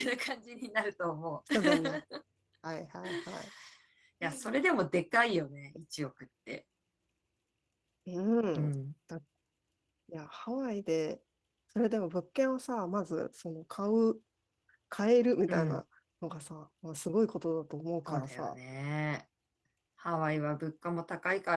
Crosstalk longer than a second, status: none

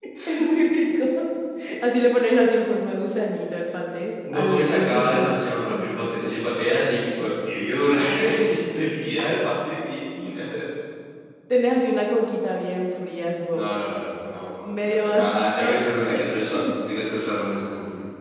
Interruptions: present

